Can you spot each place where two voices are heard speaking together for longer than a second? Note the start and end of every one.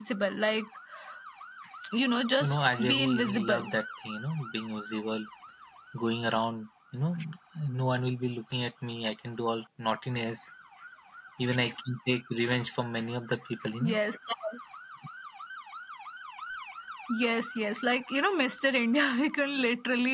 2.4-3.7

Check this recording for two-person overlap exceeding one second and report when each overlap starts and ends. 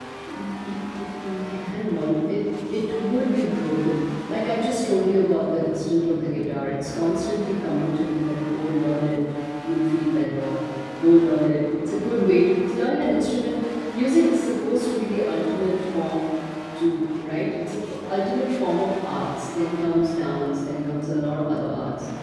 none

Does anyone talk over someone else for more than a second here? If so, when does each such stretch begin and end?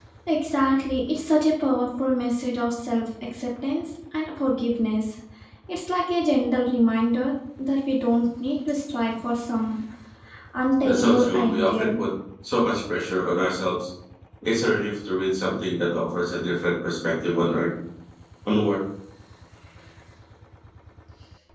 10.8-12.0

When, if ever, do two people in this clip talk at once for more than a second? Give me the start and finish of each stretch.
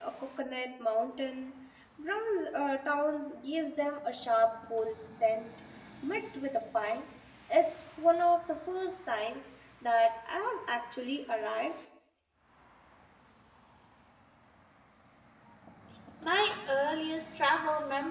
none

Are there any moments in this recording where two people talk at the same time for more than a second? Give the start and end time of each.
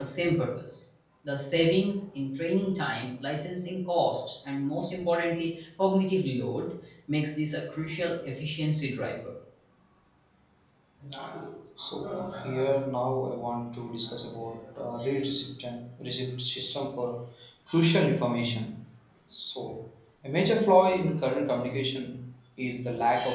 none

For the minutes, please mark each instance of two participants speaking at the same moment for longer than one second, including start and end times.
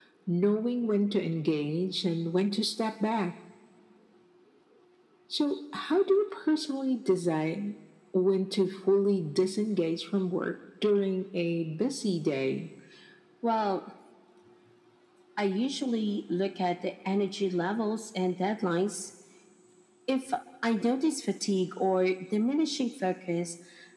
none

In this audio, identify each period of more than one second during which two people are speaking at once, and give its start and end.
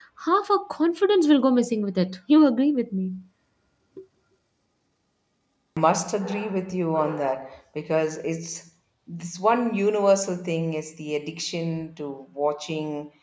none

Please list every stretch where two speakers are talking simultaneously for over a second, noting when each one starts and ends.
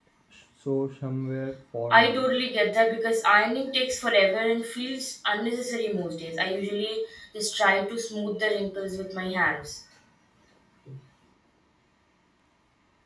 none

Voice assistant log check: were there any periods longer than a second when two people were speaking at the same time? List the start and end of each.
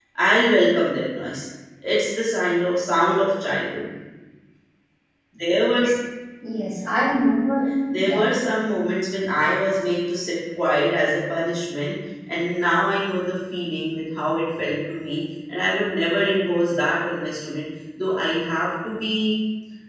none

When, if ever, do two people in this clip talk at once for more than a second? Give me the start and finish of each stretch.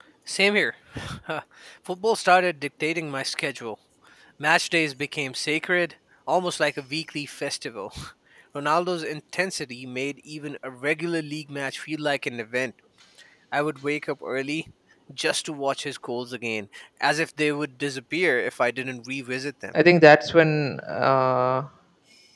none

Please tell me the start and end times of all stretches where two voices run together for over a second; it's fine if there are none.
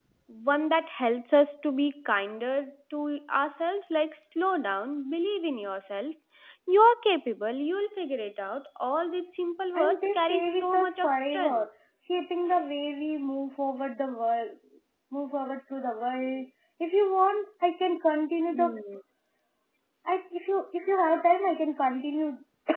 9.8-11.7

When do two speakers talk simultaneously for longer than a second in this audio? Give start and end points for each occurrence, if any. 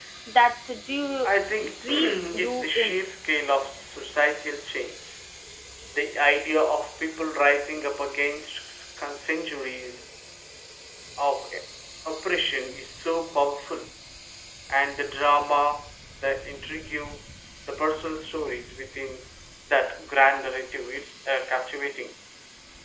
1.8-3.0

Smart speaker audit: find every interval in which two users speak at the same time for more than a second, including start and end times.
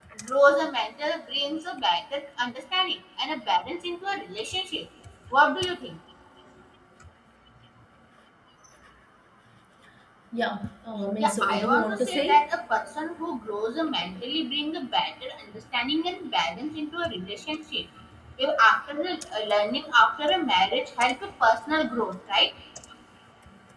11.2-12.4

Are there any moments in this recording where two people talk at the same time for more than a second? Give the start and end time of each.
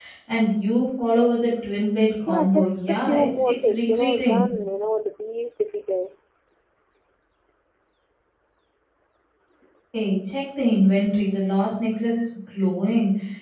2.3-4.4

